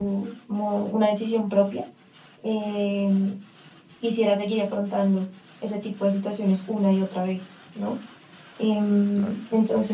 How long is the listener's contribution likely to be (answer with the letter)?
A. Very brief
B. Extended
A